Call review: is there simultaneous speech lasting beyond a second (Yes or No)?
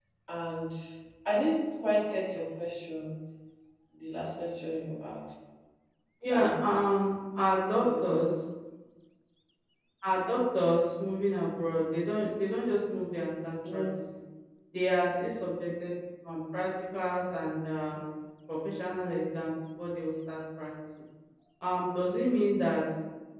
No